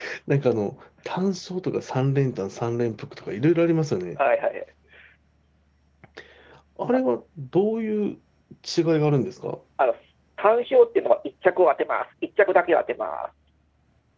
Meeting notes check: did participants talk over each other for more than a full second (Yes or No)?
No